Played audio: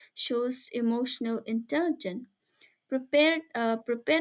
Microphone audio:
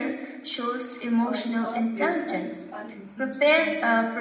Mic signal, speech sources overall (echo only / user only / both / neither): both